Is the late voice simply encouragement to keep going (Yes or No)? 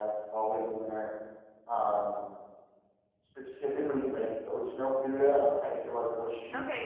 No